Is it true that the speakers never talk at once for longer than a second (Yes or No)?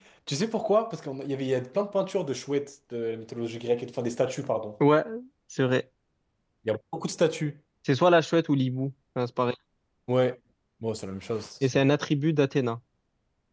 Yes